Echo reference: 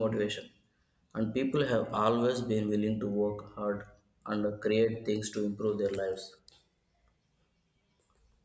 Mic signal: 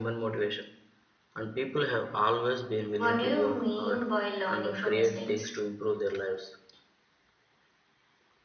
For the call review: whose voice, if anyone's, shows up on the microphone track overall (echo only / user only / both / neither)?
both